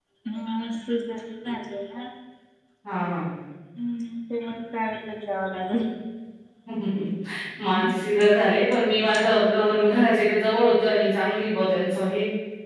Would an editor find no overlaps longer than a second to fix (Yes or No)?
Yes